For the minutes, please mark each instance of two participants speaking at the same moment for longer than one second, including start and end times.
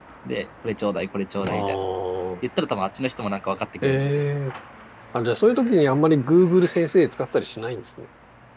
none

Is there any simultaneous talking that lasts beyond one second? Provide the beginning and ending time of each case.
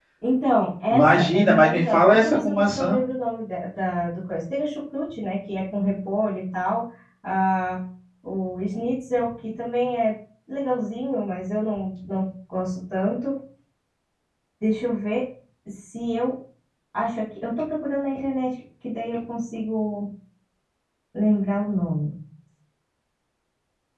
0.9-3.0

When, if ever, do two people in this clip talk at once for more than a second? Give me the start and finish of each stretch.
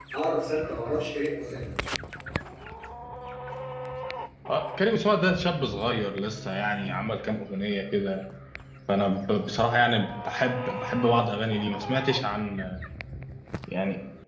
none

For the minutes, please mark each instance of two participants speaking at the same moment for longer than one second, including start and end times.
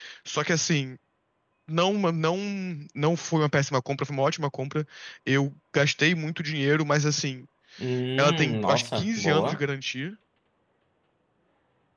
8.2-9.6

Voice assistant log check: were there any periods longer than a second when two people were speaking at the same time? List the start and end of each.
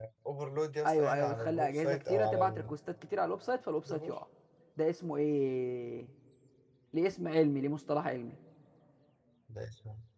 0.8-2.7

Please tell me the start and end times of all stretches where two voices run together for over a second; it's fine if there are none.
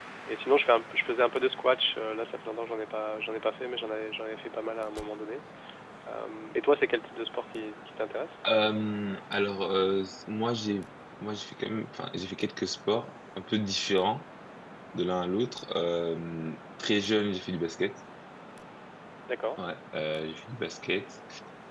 none

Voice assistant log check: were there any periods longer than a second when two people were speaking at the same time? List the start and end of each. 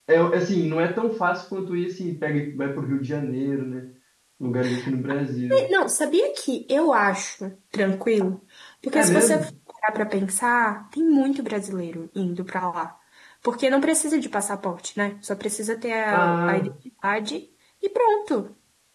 none

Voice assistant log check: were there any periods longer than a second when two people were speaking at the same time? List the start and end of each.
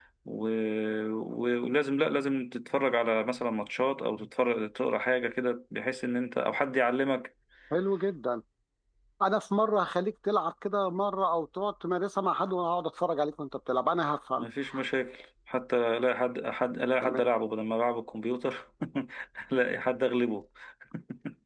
none

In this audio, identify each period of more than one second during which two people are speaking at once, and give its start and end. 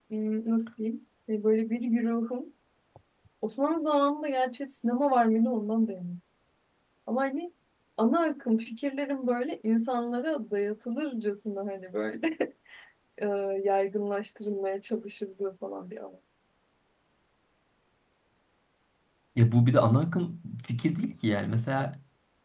none

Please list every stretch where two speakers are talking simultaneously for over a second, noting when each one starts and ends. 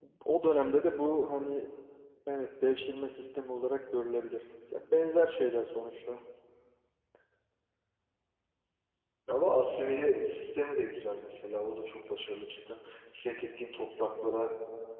none

